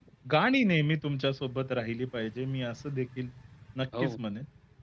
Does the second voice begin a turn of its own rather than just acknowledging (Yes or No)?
No